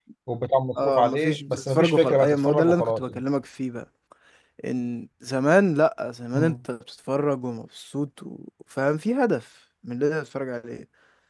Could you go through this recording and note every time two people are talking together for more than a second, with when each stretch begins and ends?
0.8-3.2

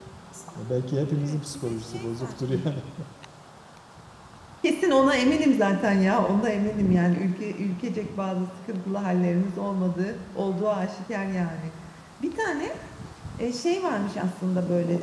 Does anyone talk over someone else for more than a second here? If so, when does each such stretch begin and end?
1.2-2.5

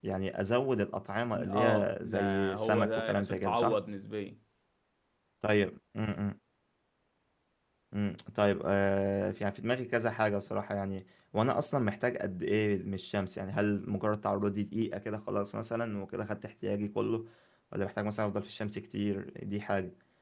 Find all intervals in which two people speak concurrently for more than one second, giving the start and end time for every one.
1.5-3.8

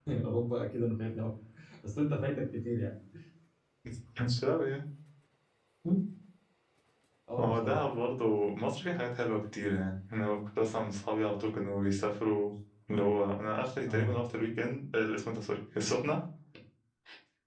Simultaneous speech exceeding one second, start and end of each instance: none

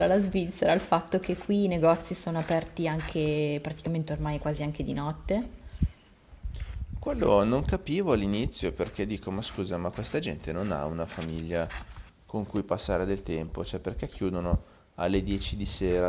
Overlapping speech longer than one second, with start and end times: none

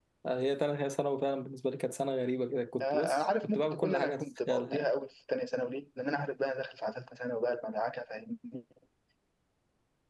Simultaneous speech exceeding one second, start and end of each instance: 2.8-4.9

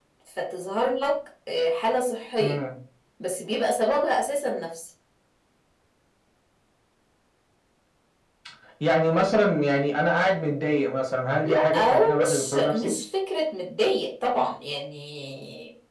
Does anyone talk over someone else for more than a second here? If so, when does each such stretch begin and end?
11.4-12.9

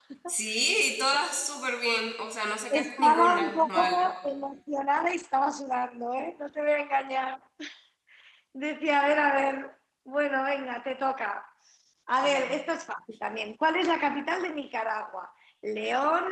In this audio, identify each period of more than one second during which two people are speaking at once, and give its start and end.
2.7-4.0

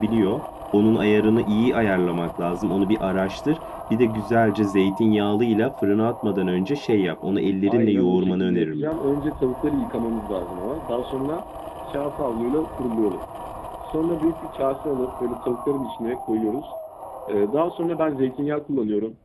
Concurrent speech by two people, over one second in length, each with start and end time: 7.7-9.0

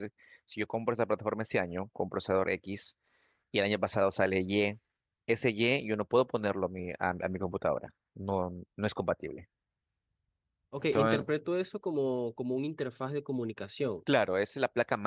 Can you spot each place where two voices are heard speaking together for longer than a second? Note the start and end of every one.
none

